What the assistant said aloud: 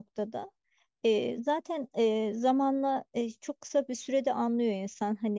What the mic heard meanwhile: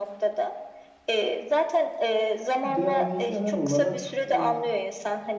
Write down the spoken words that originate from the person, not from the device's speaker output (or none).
Bir de hani genel olarak e,